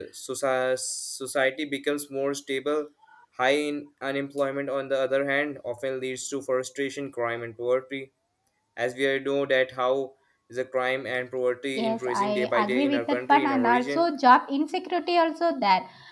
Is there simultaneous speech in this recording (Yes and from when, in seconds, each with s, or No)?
Yes, from 11.8 s